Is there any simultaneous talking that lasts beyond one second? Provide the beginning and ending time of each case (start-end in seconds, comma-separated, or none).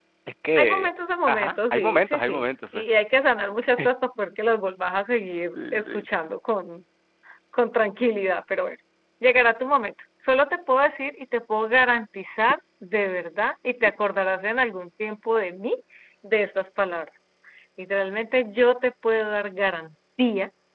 1.3-2.9